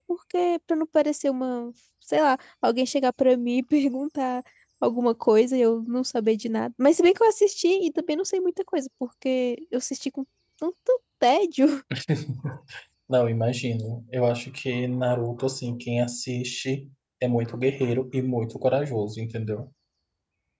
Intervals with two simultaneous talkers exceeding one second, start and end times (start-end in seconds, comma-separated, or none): none